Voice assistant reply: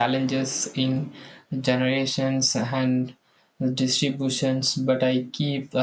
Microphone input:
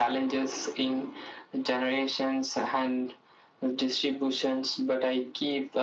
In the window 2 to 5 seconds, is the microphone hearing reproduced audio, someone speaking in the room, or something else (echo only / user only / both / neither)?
echo only